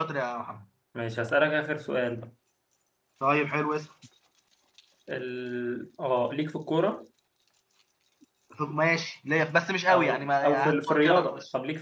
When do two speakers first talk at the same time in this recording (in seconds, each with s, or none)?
9.9 s